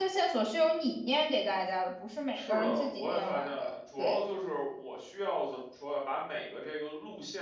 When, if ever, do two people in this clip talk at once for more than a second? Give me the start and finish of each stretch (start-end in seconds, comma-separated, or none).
2.3-4.2